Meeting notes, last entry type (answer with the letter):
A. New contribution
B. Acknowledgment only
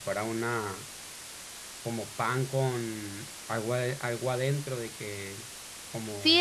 A